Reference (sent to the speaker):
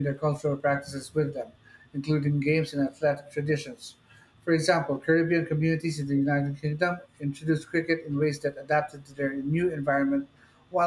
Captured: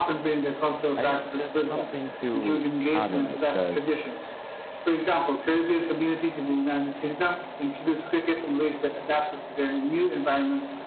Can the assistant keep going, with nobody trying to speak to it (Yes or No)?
No